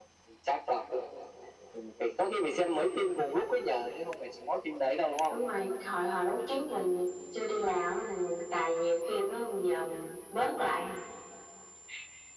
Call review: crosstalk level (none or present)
none